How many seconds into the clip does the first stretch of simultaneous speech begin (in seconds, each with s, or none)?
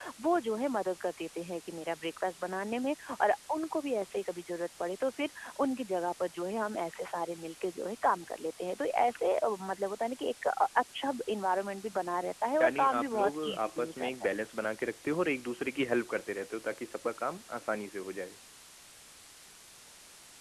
12.6 s